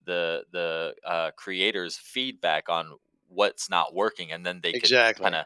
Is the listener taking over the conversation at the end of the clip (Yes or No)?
No